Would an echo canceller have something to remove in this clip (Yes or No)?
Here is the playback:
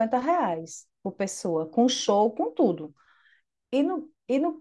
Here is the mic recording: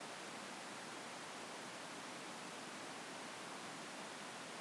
No